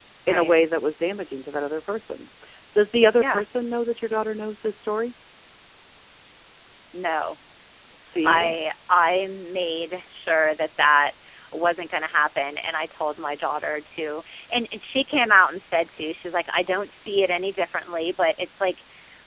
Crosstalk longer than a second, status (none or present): none